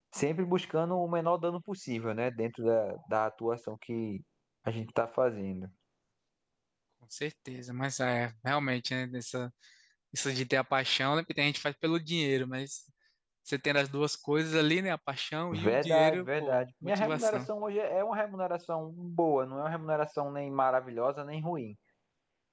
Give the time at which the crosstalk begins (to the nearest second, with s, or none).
16 s